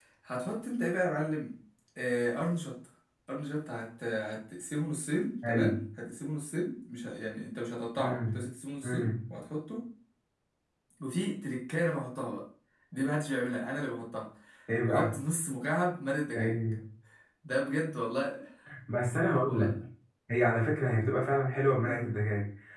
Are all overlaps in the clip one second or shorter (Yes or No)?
Yes